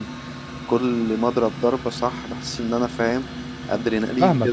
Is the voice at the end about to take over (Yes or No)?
Yes